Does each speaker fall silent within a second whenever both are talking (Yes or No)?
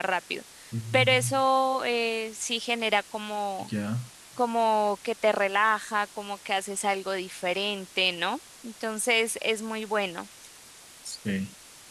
Yes